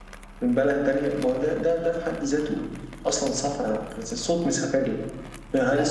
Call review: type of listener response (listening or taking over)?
listening